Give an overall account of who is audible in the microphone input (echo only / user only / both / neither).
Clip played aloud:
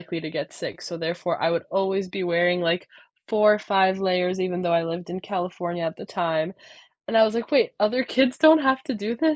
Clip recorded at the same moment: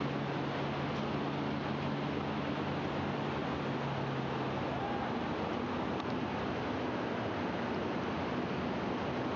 neither